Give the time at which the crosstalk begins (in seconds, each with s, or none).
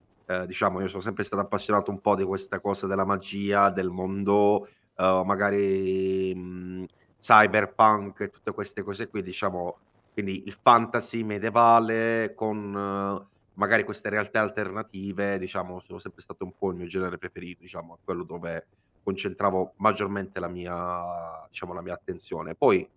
none